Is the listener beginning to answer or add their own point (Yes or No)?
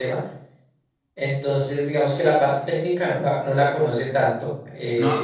Yes